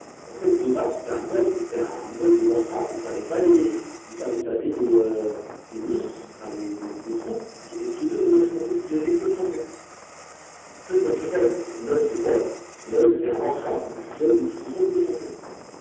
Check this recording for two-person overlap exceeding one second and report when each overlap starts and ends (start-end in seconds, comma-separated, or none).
none